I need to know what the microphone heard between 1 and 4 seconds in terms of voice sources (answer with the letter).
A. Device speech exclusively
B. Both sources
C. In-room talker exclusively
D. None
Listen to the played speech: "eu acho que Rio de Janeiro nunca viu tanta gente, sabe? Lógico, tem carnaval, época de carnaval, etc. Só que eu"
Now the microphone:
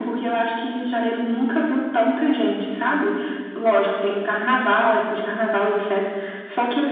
A